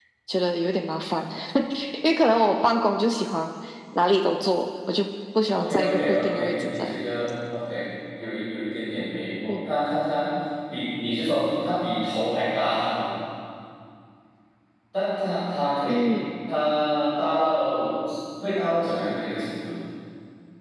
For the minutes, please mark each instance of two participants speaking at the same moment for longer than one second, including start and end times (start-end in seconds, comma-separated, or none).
5.5-7.0